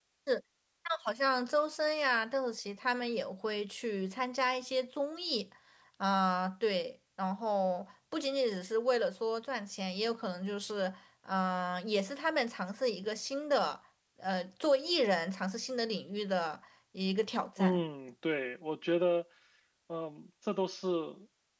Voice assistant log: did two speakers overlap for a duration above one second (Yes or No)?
No